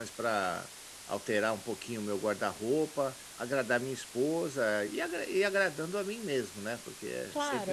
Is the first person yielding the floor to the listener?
Yes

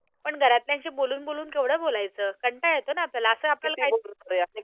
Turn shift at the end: Yes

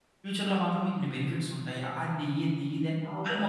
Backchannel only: No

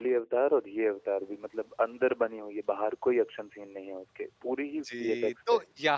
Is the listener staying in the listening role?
No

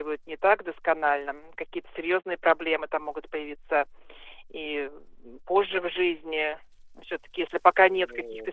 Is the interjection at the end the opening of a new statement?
No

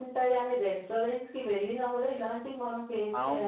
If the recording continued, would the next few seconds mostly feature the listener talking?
Yes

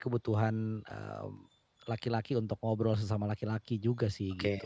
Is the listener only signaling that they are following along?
No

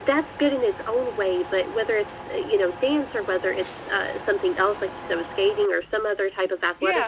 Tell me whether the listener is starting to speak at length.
No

